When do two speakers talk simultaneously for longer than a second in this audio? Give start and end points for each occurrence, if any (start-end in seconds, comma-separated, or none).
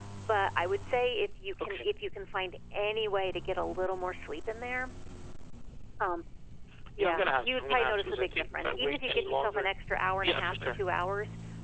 7.0-9.7